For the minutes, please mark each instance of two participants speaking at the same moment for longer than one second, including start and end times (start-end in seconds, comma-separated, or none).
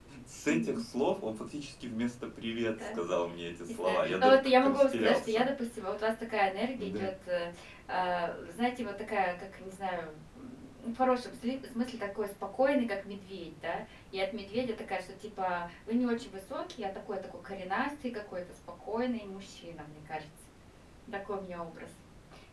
3.7-5.4